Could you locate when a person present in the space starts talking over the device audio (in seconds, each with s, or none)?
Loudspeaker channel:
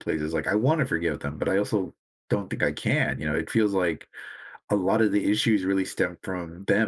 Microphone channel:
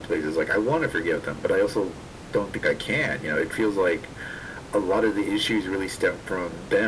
none